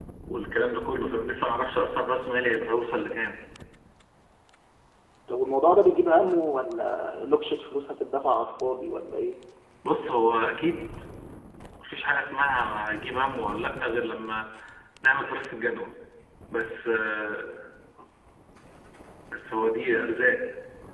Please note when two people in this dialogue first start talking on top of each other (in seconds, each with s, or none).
none